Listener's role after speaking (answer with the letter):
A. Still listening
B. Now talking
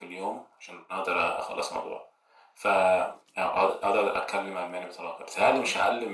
A